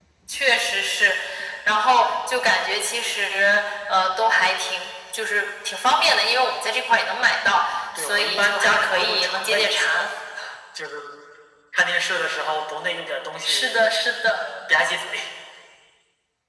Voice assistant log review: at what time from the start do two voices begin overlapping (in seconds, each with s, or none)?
8.0 s